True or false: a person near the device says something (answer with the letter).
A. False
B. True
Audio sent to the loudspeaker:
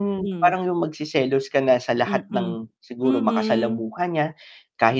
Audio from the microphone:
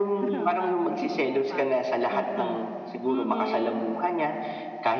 B